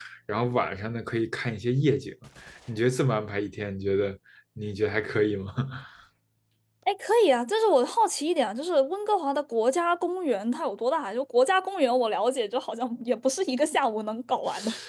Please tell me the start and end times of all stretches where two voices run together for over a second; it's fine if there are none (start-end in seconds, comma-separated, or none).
none